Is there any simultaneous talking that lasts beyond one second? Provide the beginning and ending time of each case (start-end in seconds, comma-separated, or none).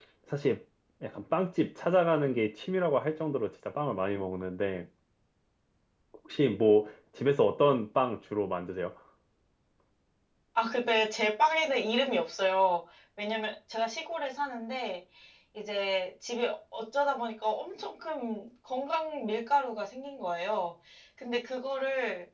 none